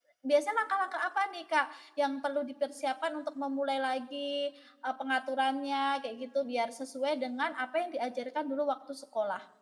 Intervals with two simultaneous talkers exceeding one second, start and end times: none

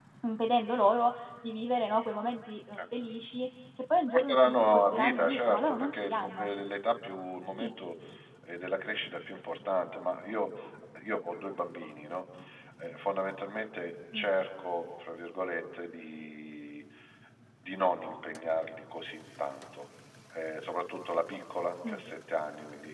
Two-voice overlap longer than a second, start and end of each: 4.1-6.5

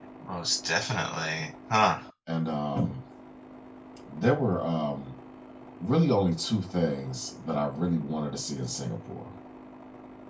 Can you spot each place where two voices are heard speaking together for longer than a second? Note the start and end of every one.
none

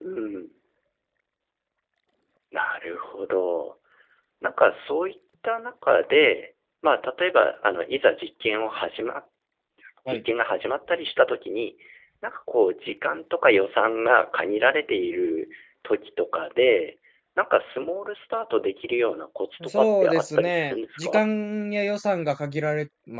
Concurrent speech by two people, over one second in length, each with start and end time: 19.7-21.2

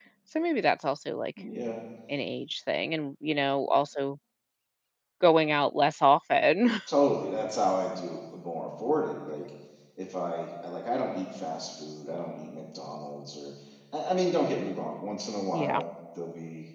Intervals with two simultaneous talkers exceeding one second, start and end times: none

